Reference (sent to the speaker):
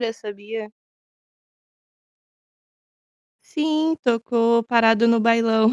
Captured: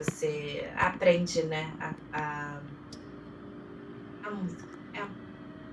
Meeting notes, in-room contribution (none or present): present